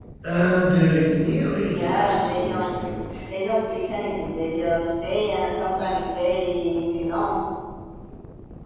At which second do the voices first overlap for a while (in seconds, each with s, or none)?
1.7 s